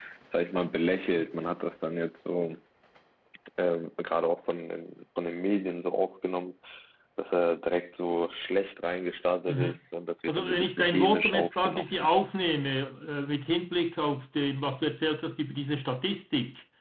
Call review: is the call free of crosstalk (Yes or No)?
No